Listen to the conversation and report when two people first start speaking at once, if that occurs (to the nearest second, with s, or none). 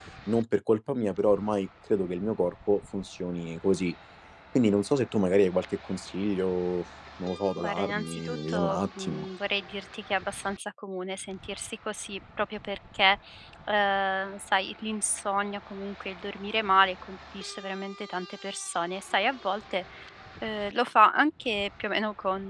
8 s